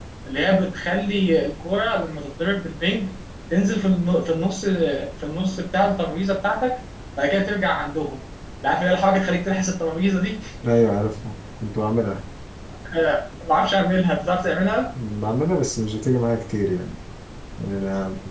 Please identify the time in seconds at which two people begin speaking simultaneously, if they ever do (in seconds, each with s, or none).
none